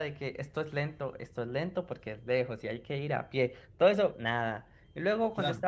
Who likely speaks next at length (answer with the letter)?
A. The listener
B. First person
B